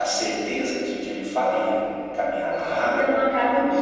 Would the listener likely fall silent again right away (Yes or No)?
No